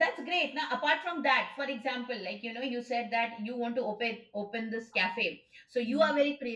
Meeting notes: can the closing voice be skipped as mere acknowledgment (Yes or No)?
Yes